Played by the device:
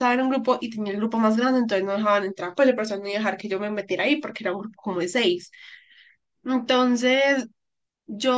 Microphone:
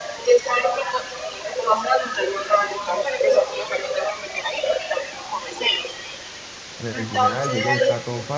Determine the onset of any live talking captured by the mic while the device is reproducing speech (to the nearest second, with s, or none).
7 s